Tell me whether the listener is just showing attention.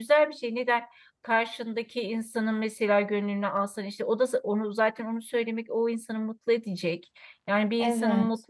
Yes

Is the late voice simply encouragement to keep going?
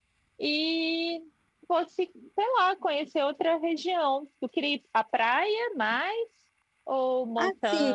No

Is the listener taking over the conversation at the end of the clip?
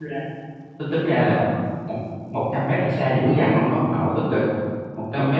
No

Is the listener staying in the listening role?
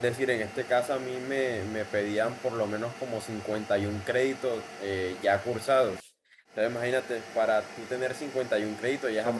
No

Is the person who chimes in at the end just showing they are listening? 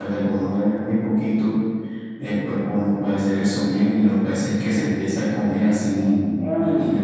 No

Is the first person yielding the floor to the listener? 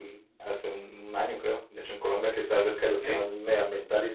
No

